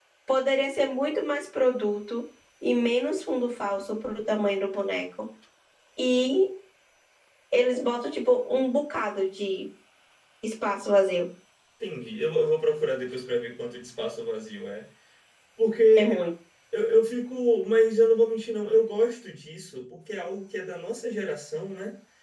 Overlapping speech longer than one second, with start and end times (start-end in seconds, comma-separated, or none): none